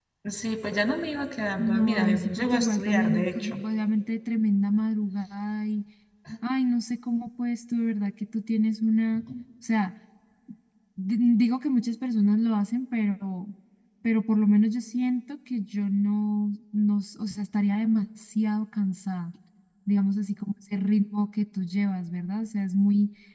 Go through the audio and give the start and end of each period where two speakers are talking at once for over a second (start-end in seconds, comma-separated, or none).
1.6-3.6